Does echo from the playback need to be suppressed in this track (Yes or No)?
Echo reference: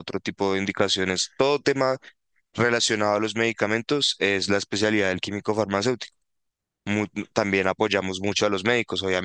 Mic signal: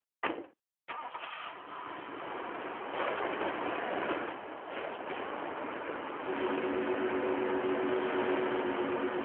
No